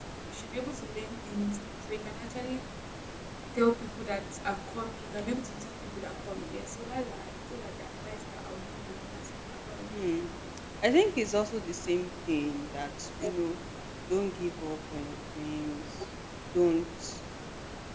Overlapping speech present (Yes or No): No